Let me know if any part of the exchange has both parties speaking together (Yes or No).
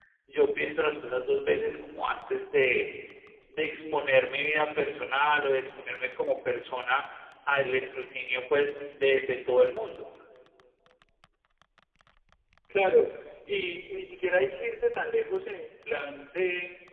No